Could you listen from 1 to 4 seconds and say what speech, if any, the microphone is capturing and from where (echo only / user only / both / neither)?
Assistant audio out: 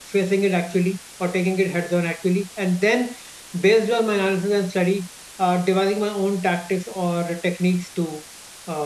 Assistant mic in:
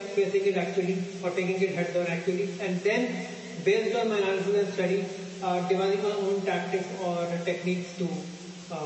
echo only